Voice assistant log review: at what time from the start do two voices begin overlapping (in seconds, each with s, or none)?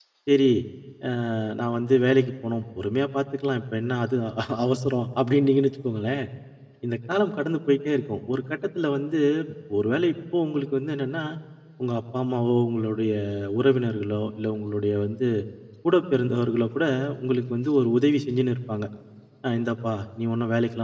none